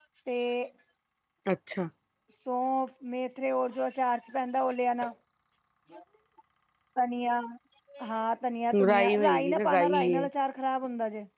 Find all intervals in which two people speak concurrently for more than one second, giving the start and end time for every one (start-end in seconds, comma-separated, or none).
8.8-10.3